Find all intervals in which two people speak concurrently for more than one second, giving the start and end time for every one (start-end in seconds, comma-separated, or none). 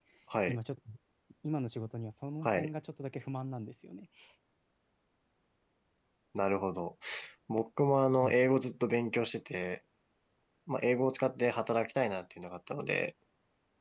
none